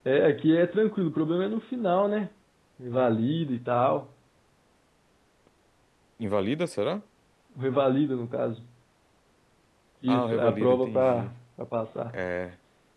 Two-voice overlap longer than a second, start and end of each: 10.1-11.3

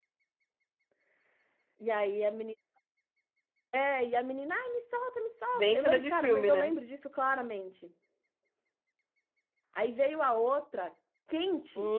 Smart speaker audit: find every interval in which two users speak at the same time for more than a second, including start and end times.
5.5-6.7

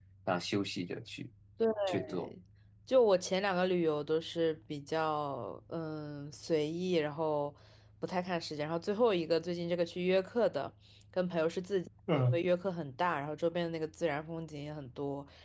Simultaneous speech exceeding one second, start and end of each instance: none

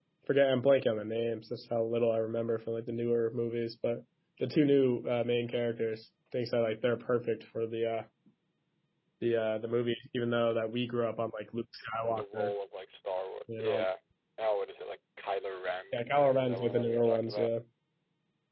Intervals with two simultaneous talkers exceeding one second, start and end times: 15.9-17.5

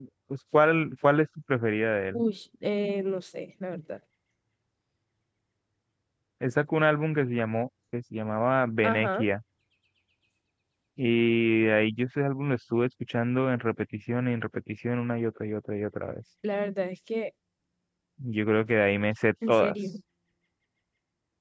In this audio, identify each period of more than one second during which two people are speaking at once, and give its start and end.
none

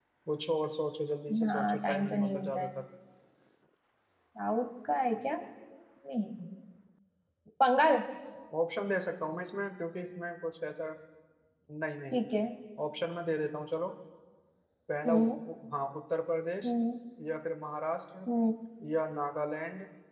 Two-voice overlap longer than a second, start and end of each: 1.5-2.7

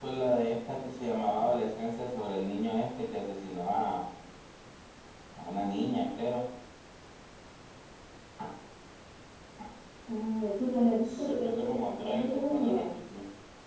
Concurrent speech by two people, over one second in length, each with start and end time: 11.2-12.8

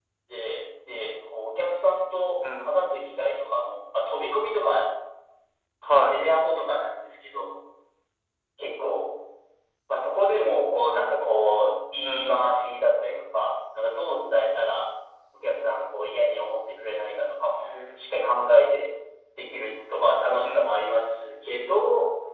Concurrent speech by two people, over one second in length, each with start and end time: none

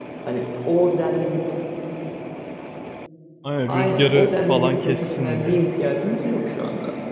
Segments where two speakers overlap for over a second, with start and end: 3.7-5.6

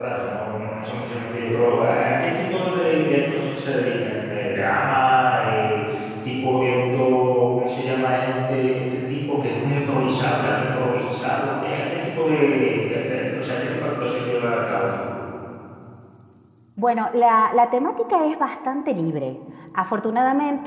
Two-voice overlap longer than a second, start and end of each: none

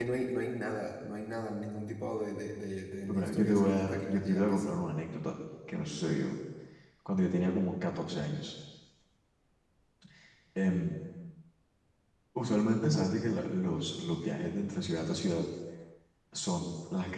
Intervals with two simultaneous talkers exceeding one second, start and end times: 3.1-4.8

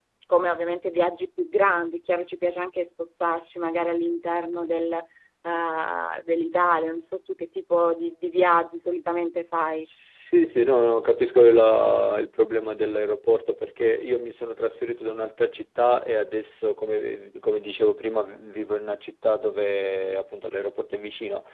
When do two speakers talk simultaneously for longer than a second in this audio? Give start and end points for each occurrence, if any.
none

